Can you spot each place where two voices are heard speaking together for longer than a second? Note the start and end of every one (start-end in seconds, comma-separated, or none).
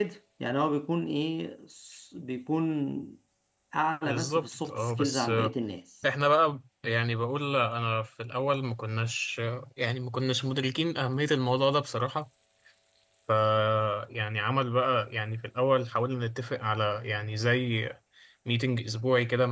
4.0-5.5